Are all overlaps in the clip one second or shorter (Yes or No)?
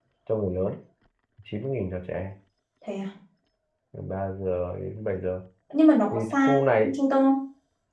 Yes